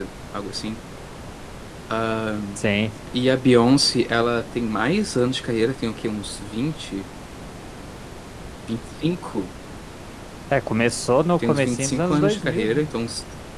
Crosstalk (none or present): present